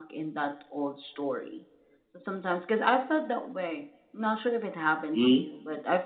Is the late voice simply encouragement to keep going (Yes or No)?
Yes